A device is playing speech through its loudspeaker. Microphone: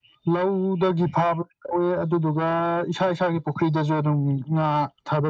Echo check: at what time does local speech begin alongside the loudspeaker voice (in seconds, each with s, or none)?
none